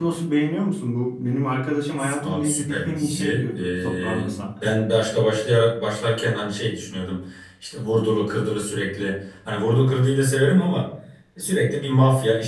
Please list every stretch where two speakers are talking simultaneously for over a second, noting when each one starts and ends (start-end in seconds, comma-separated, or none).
2.2-4.3